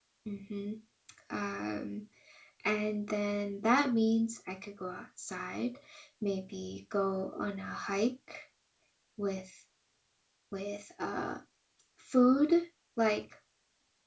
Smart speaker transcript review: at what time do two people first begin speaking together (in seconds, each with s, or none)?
none